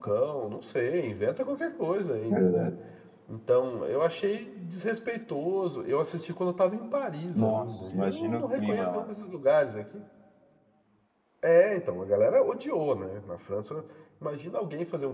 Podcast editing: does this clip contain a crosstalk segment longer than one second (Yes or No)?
Yes